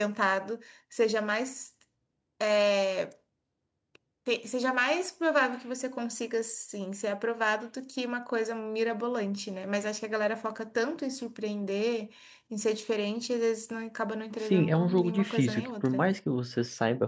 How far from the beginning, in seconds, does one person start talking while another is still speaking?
14.4 s

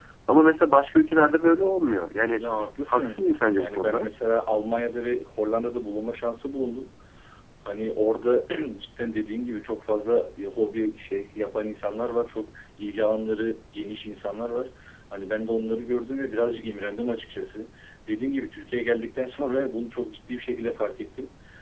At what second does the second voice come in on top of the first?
2.9 s

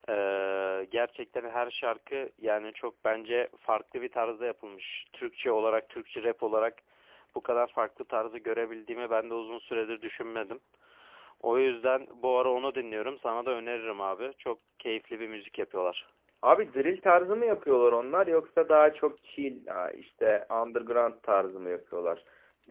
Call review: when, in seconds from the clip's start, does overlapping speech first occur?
none

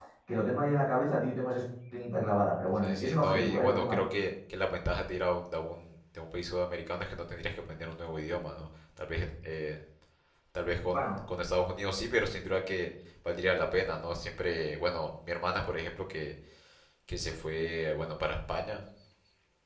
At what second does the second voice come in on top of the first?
2.8 s

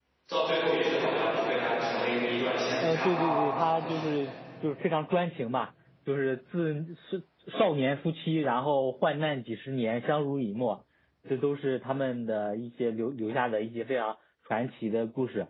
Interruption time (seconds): 2.8 s

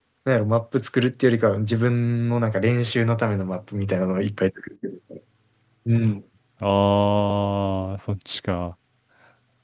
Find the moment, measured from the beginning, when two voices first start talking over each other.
none

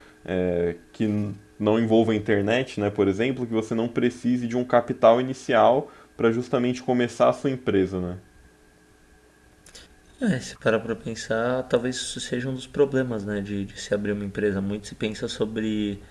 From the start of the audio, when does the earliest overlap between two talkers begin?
none

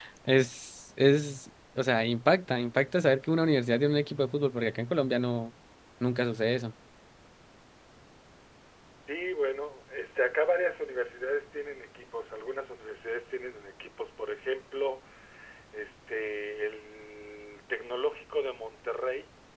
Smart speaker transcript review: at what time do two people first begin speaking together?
none

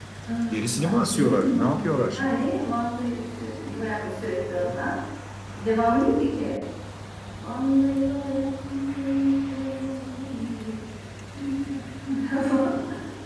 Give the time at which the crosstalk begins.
0.5 s

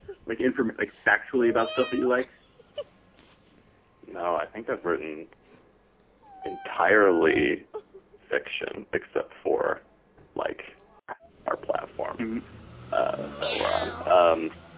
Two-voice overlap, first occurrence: none

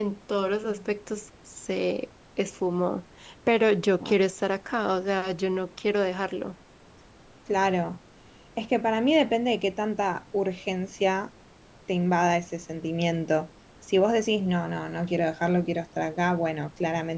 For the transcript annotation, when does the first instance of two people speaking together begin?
none

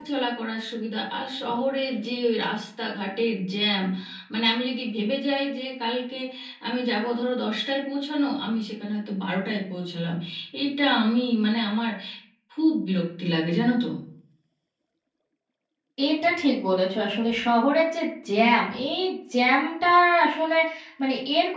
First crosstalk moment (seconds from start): none

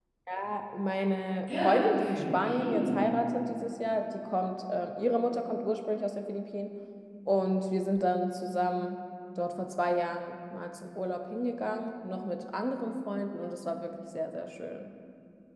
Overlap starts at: 1.5 s

